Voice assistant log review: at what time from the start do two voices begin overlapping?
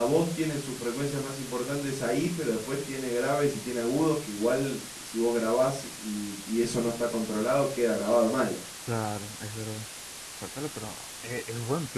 none

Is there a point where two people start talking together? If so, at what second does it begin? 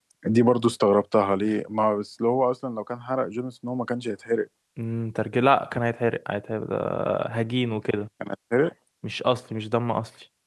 none

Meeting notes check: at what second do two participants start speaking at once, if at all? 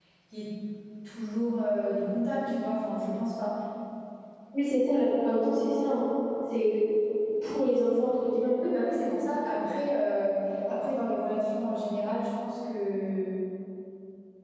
none

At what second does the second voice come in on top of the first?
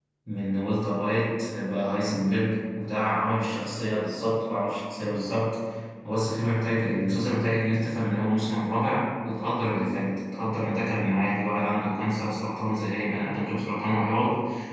none

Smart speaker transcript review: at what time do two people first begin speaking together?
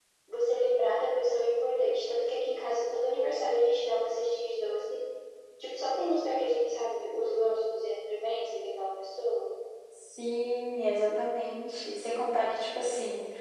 none

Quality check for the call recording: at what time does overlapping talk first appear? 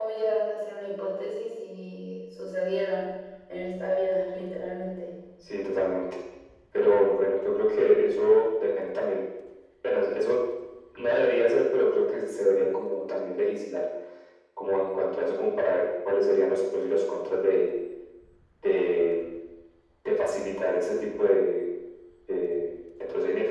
none

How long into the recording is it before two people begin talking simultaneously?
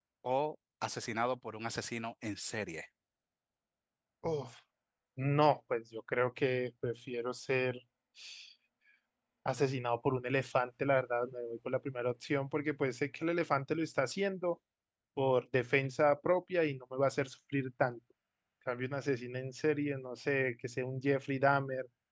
none

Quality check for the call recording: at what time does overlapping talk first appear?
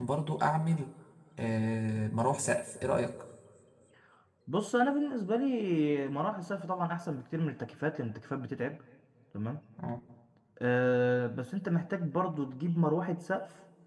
none

